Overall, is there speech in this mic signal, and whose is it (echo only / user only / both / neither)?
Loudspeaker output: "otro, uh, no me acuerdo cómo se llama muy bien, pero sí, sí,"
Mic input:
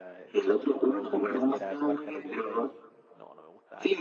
both